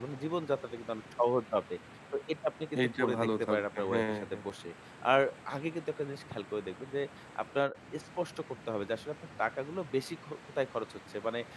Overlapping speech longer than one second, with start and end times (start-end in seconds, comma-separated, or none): 2.8-4.5